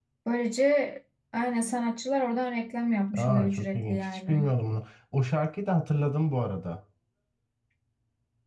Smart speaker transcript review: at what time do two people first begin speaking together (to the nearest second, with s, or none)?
3 s